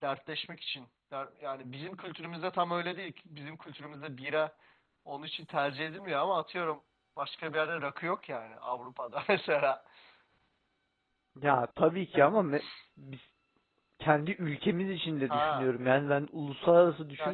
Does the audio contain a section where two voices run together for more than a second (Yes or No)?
No